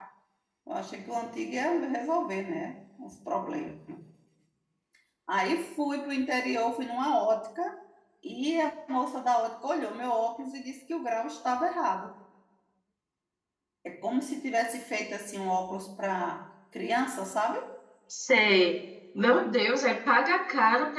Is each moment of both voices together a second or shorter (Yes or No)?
Yes